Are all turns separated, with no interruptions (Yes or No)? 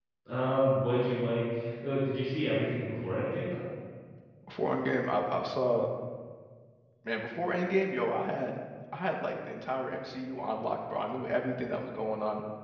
Yes